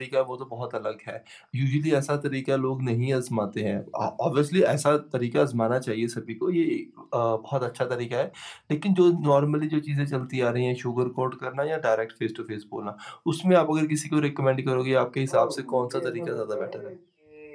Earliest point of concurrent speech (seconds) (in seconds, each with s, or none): 15.3 s